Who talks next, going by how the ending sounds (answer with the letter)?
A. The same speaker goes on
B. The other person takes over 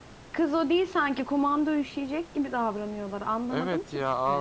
B